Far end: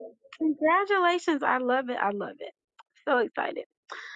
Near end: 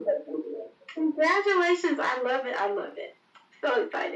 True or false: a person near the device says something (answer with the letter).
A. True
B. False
B